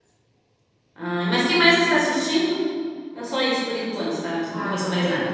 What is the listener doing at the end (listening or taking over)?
taking over